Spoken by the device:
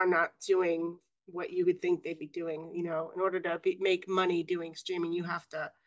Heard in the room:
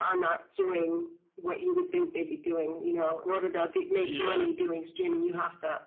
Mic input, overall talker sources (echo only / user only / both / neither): both